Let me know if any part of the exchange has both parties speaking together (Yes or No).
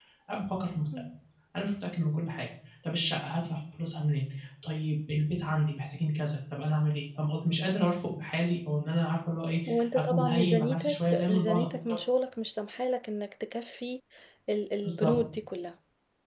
Yes